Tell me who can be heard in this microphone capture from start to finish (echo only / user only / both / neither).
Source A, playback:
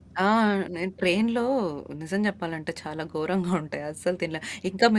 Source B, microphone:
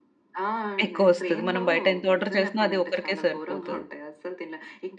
both